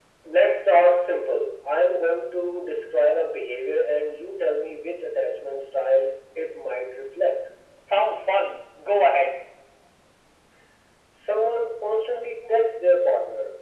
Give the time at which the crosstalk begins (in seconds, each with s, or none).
none